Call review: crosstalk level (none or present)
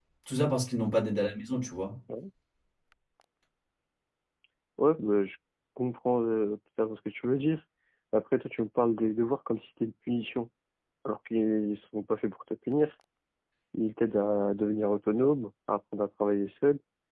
none